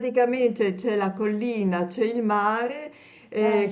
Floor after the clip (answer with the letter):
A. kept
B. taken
A